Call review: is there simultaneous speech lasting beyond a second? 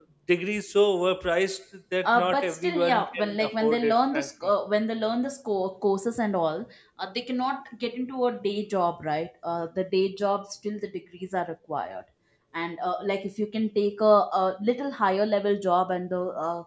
Yes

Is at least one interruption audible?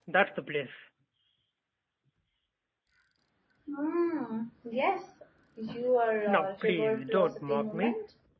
Yes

